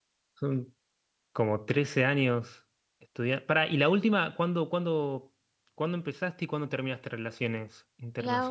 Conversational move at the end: taking over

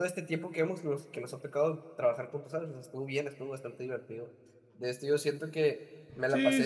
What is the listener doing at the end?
listening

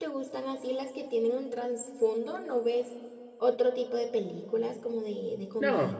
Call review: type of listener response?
taking over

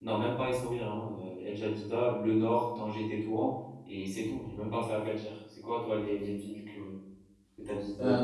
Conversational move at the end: taking over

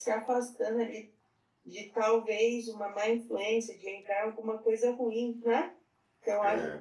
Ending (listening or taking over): listening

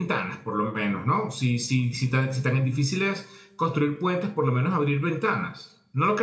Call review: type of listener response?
taking over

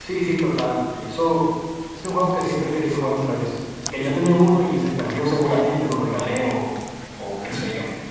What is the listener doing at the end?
taking over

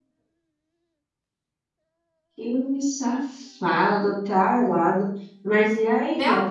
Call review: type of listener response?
taking over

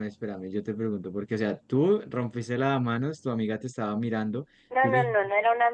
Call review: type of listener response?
taking over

